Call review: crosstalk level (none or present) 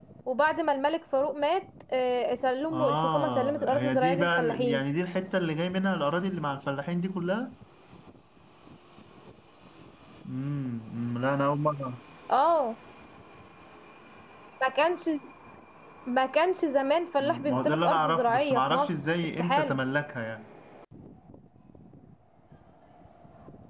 present